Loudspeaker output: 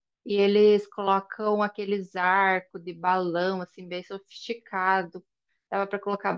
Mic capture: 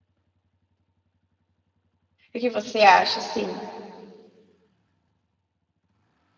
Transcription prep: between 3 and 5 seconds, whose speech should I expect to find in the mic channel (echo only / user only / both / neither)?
user only